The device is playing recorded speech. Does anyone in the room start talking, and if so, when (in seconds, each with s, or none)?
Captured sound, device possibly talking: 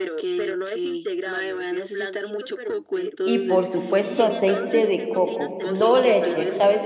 3.2 s